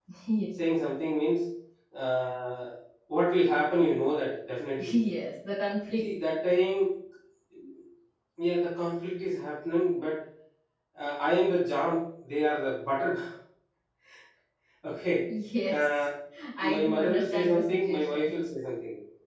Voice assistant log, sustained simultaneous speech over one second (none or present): present